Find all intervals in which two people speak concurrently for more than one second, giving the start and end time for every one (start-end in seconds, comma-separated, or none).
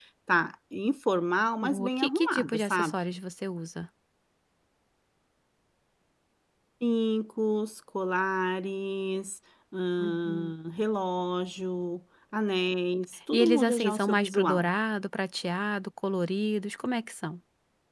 1.7-2.9, 13.3-14.7